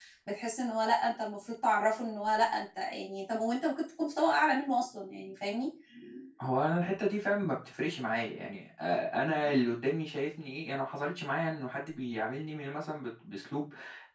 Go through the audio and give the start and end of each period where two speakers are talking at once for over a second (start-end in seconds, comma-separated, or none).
none